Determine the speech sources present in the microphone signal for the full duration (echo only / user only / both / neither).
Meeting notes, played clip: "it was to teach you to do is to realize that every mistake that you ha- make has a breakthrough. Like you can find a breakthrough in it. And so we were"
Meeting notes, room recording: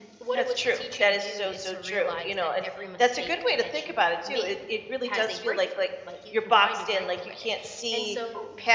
both